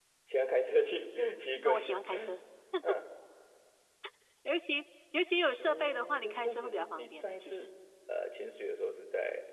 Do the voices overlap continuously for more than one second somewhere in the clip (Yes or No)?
Yes